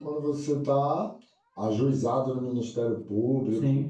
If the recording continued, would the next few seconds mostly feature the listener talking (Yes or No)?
No